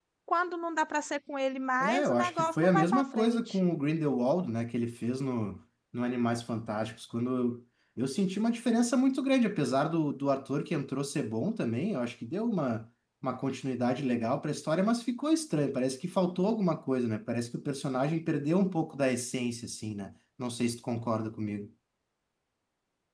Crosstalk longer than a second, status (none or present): present